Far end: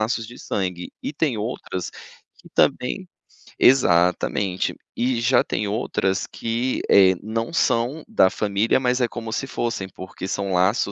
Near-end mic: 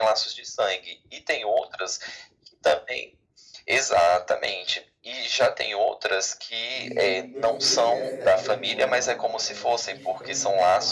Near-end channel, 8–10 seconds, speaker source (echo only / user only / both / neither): both